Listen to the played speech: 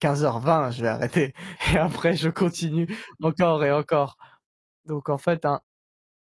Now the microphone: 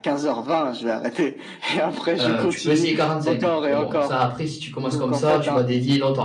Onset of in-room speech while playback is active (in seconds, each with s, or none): 2.2 s